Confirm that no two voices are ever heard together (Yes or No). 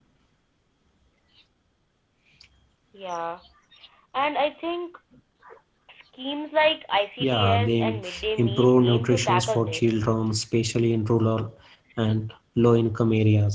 No